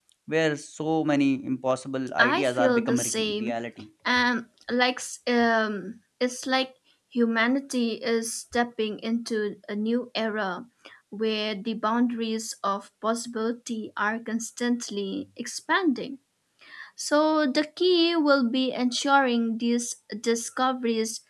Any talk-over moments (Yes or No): Yes